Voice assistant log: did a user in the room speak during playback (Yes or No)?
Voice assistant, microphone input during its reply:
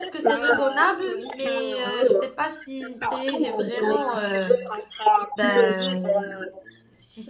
Yes